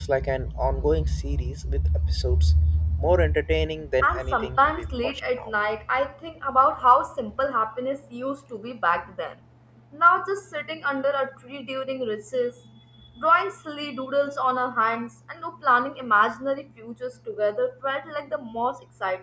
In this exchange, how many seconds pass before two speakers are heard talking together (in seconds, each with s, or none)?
4.0 s